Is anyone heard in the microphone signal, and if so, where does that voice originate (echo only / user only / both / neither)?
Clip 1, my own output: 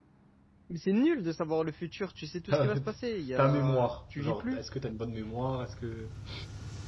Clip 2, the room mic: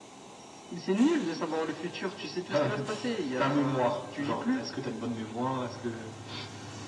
echo only